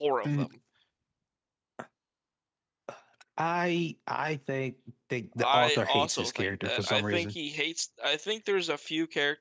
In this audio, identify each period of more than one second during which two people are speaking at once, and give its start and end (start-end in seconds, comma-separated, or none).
5.4-7.3